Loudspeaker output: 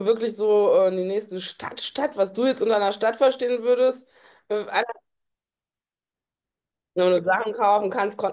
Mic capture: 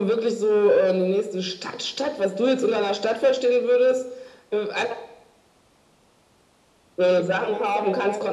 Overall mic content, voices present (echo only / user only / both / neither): both